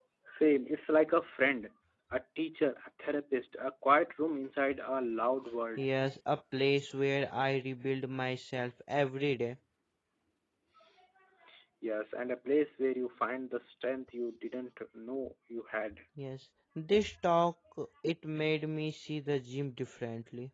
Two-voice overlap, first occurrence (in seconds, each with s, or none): none